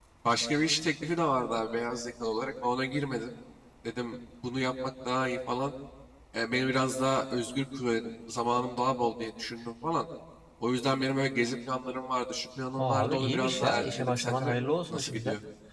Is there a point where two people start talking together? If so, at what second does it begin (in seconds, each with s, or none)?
12.8 s